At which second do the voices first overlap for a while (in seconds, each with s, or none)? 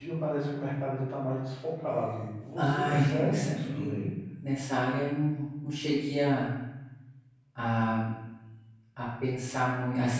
2.6 s